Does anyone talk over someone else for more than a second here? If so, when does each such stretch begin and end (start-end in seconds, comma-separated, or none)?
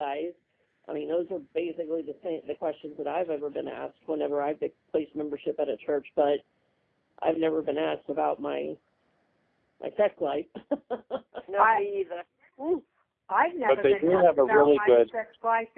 13.6-15.0